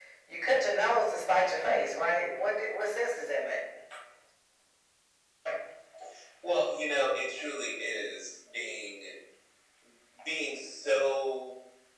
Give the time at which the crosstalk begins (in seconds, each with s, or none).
none